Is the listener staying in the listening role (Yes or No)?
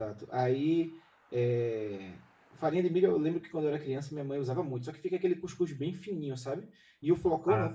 Yes